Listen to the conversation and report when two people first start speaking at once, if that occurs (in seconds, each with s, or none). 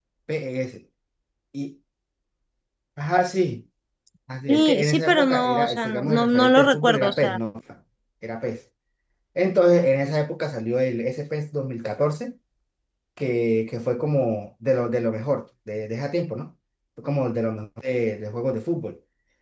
4.5 s